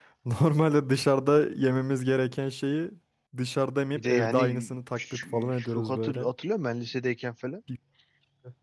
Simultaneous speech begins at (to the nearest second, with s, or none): 4 s